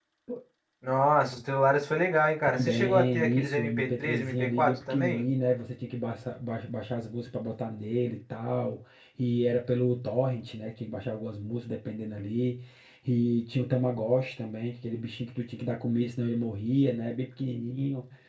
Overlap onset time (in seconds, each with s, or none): 2.5 s